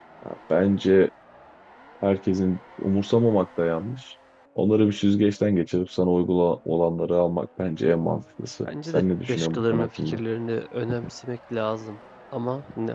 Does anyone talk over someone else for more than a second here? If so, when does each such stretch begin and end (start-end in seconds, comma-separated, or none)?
8.6-10.2